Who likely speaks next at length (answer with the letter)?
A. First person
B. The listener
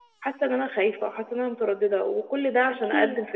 A